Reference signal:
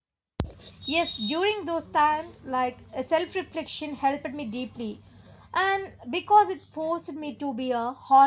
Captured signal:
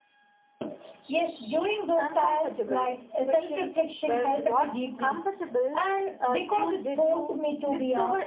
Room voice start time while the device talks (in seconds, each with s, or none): 2.0 s